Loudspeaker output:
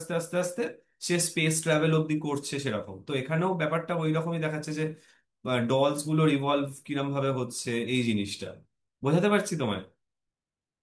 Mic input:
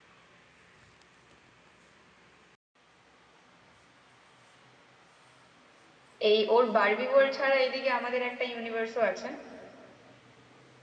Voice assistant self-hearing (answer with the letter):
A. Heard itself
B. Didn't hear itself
B